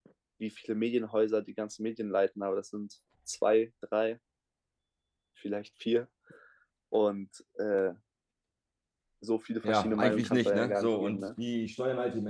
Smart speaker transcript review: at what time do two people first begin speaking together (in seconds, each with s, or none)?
9.6 s